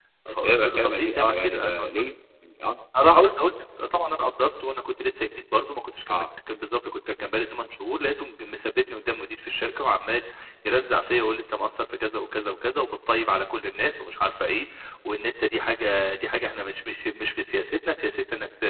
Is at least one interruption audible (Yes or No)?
Yes